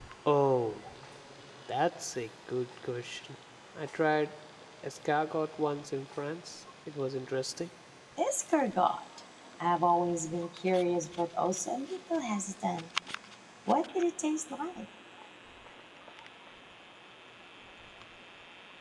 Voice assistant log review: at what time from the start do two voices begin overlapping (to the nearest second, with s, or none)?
none